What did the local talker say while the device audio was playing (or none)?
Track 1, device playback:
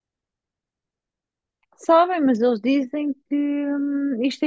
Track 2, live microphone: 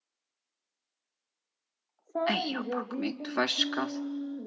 Ei, opa, como é que tu vais descalço?